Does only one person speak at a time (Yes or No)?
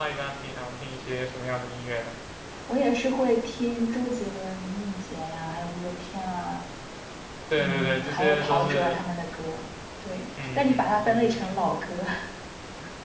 No